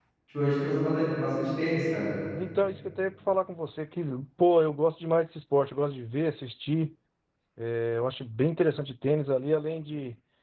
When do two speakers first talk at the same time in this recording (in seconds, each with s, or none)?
none